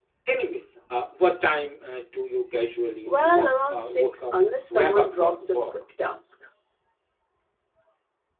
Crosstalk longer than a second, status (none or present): present